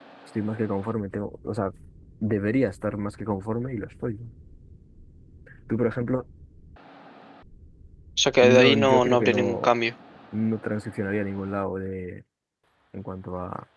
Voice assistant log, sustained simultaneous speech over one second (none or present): present